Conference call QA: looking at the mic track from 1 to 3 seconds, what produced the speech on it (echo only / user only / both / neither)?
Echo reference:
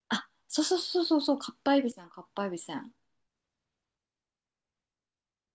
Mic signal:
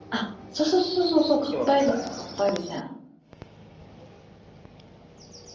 both